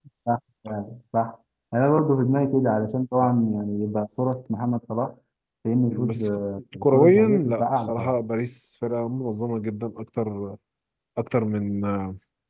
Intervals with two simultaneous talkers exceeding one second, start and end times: 6.8-8.2

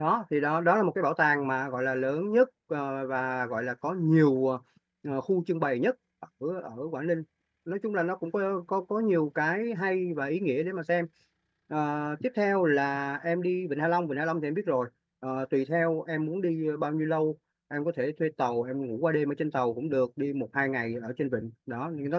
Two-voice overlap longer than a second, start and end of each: none

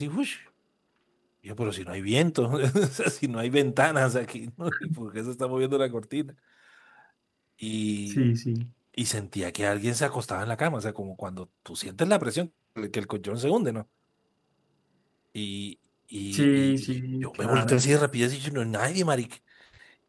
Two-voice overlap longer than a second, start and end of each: 16.3-17.9

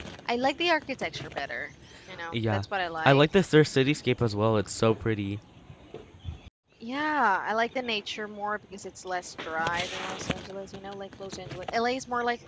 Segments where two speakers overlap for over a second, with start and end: none

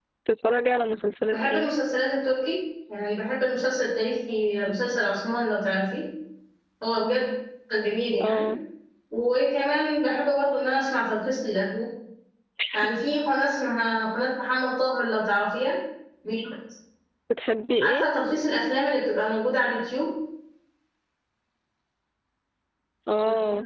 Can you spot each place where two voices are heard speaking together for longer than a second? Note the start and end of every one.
none

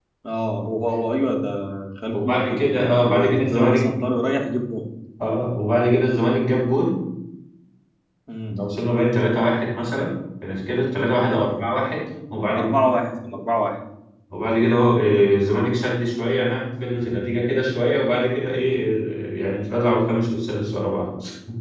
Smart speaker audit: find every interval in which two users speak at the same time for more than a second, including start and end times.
2.1-3.8

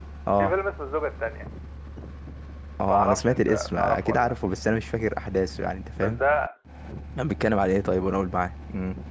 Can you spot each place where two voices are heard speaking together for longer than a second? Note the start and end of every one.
2.9-4.3

